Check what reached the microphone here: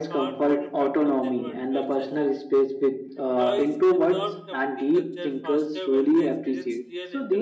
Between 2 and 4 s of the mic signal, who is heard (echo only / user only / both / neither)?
both